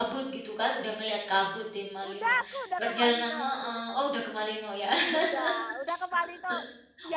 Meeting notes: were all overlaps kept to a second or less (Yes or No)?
No